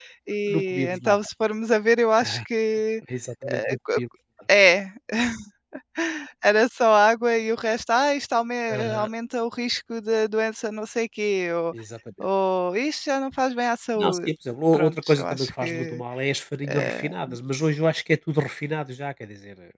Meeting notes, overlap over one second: present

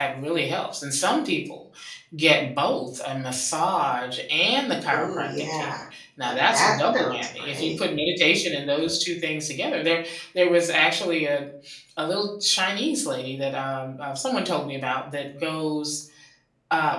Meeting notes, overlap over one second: present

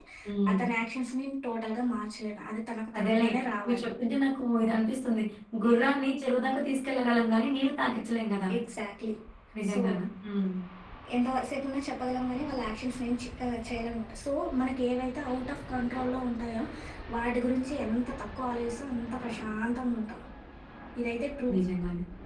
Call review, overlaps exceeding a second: none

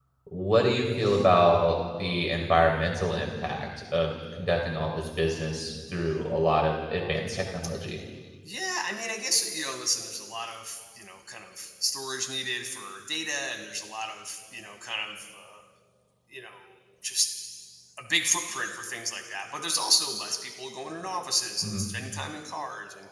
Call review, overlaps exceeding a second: none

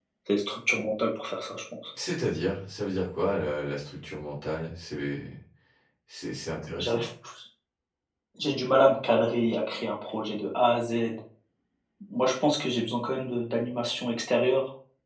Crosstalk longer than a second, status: none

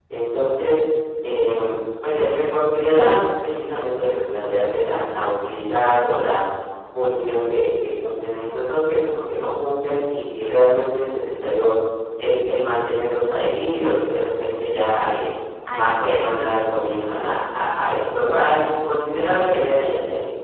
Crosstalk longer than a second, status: present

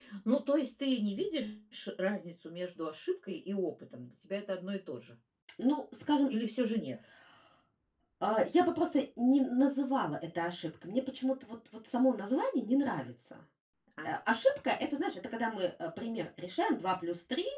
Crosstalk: none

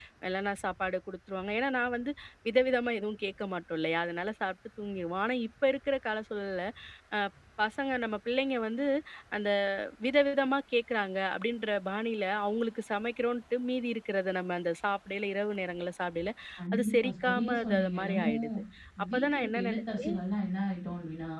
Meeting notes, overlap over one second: present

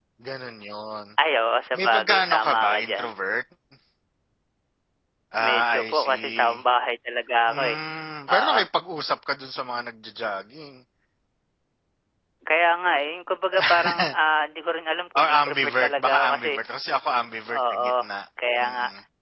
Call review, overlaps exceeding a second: present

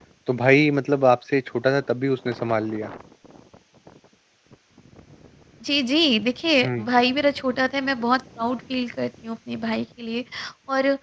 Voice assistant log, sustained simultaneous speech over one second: none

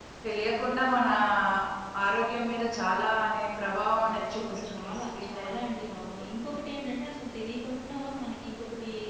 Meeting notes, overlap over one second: present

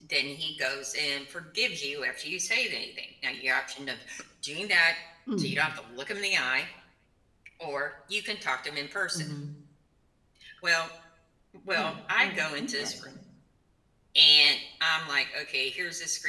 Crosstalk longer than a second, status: present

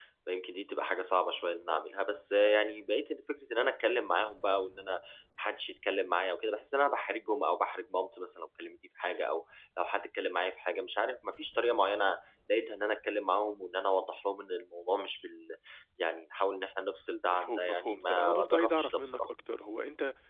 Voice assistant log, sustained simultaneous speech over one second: present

